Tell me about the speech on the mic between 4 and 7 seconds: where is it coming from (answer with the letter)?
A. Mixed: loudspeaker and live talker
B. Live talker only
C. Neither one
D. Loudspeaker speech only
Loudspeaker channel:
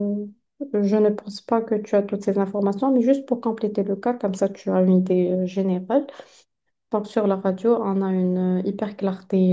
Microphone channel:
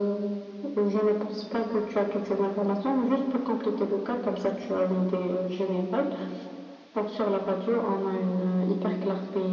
D